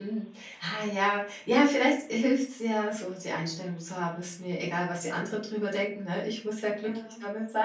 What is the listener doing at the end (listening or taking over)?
listening